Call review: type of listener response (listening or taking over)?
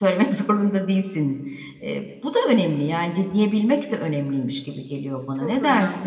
taking over